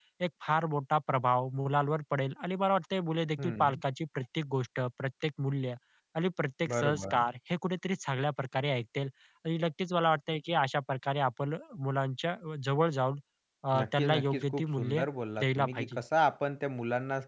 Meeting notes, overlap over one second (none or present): present